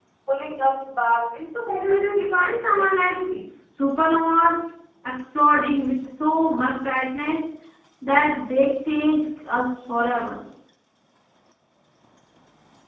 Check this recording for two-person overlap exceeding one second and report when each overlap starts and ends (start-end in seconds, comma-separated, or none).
1.7-3.2